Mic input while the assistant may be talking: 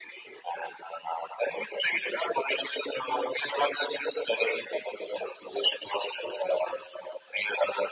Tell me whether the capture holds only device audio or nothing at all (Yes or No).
Yes